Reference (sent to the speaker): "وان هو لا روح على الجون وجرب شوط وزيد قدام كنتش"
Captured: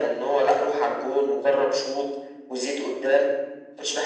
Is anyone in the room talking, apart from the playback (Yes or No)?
No